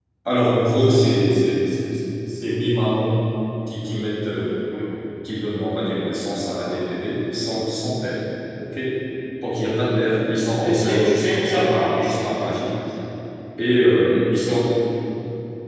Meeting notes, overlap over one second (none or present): present